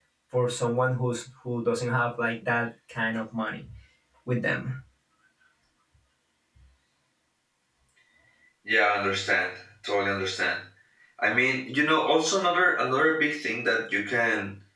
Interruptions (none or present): none